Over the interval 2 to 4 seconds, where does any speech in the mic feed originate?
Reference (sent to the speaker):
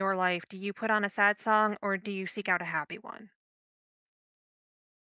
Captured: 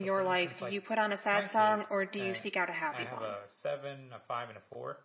both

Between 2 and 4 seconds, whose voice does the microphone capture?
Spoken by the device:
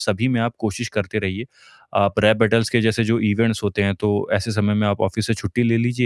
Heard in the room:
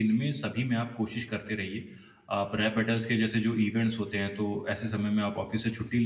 echo only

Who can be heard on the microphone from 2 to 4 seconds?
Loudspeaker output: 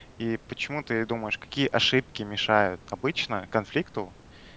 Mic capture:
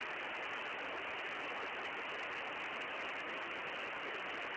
neither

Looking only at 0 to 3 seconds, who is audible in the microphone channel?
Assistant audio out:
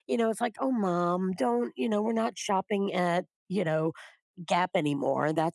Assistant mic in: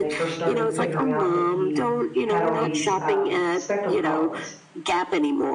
both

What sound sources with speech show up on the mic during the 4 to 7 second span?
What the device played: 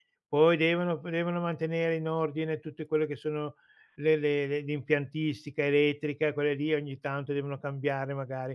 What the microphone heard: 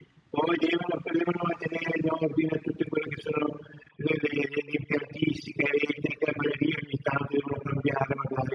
echo only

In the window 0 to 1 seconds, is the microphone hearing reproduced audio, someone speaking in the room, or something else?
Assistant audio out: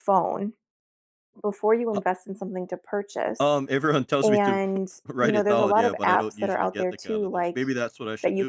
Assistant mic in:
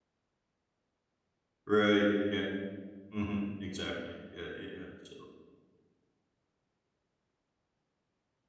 neither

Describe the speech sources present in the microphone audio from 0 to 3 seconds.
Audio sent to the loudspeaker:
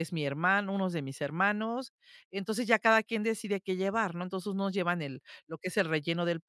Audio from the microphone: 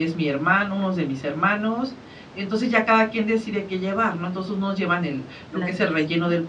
echo only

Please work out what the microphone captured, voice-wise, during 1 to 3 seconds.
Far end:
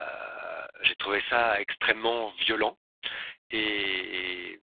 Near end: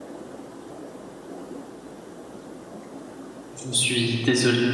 neither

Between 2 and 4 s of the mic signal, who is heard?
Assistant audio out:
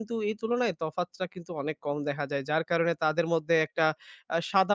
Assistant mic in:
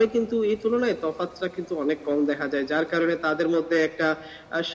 echo only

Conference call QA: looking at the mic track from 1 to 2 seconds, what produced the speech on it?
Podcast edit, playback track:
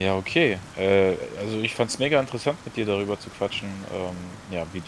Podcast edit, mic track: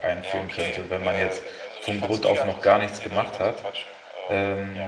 both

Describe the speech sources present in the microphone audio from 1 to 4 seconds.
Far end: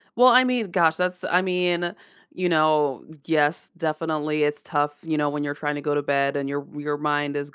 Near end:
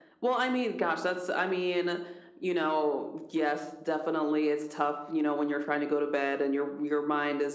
echo only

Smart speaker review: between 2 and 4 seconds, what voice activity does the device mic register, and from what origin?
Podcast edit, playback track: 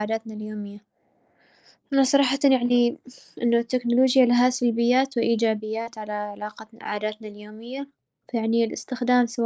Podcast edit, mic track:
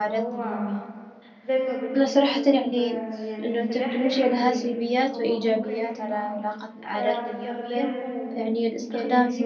both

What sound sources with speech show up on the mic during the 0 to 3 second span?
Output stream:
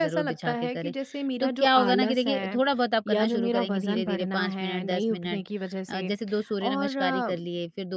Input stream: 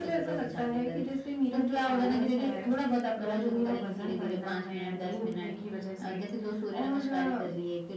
echo only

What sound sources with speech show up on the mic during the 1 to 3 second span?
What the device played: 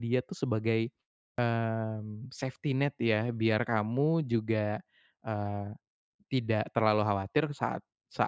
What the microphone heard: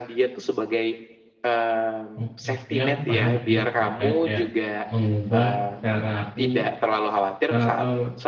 both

